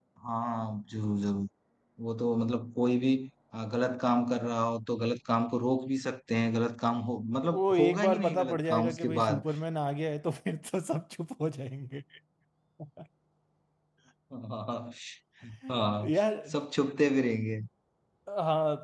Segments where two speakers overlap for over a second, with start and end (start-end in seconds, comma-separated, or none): 7.5-9.4